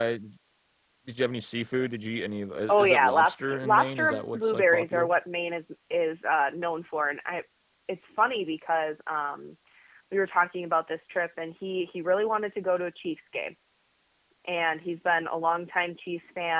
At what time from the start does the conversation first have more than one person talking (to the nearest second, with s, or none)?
3 s